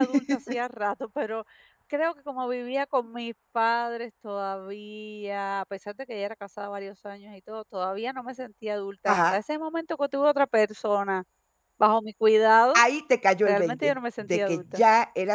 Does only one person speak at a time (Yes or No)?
No